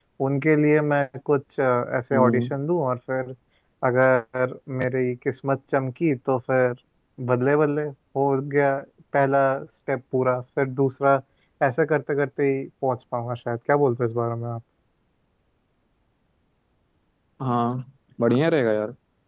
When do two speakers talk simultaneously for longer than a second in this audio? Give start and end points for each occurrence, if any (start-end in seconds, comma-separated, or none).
none